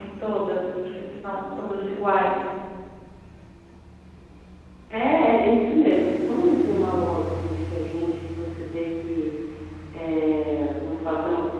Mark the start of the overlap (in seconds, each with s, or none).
none